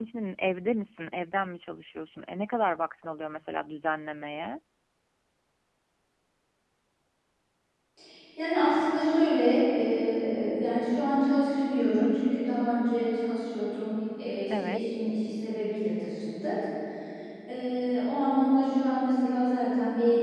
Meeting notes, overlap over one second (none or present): none